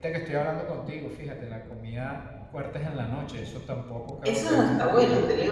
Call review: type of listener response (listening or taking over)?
taking over